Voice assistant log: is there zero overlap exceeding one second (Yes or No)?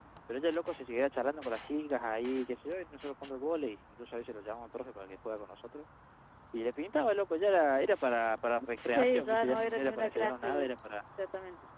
No